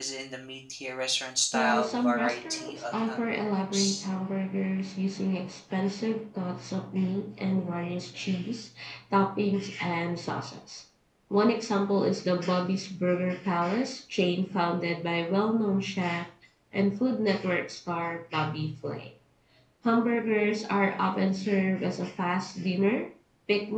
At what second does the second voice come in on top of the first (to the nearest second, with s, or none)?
2 s